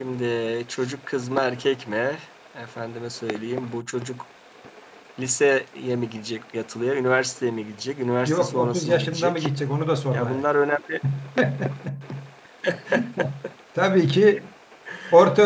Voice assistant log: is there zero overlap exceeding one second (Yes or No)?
No